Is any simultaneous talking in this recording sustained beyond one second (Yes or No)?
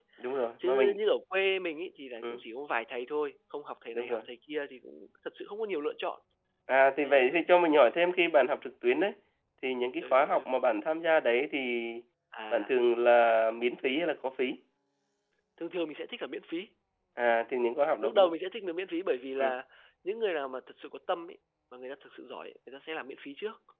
No